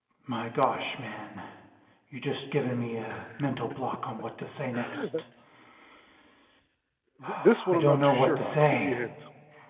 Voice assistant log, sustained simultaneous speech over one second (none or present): present